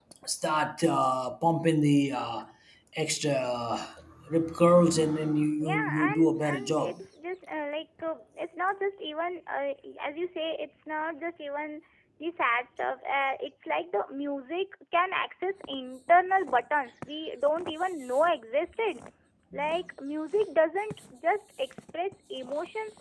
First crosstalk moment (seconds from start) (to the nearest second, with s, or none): 6 s